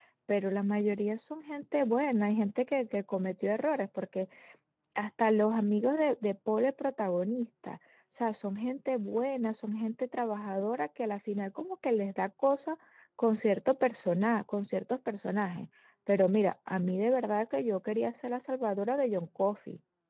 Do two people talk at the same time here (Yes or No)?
No